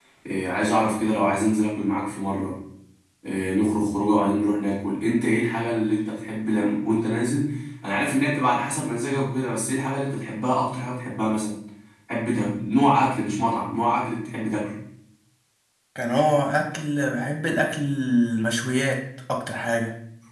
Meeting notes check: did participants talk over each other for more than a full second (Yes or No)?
No